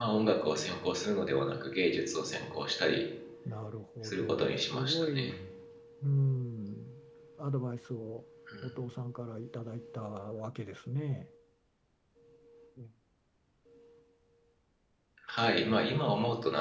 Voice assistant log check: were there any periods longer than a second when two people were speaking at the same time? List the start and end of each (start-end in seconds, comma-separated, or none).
4.0-5.4